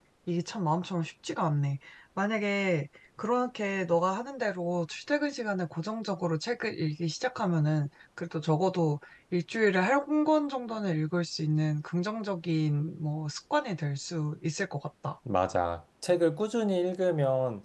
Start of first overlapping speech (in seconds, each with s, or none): none